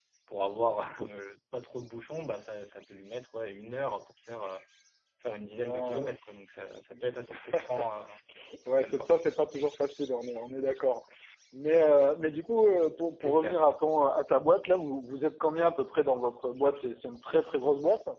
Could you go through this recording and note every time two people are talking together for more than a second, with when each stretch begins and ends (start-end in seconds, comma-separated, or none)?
none